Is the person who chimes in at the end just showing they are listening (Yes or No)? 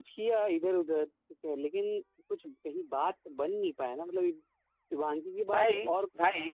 Yes